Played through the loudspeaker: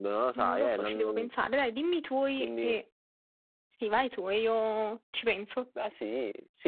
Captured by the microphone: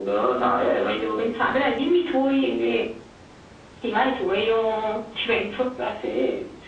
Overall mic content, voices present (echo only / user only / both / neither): echo only